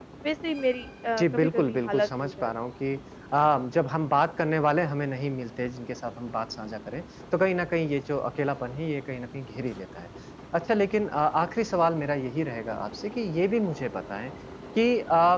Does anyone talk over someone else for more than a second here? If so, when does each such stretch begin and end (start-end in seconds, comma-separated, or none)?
1.2-2.5